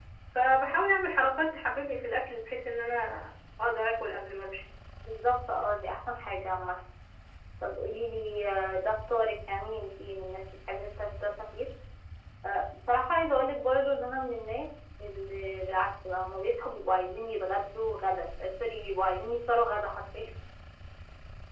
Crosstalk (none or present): none